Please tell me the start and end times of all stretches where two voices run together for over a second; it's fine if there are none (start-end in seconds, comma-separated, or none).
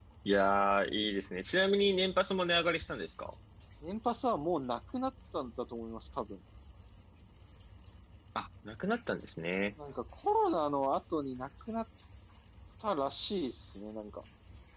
none